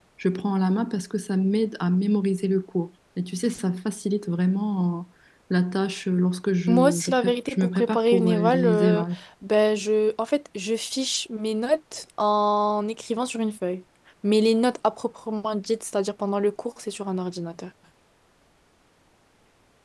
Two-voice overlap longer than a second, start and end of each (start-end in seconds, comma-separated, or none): 6.7-9.0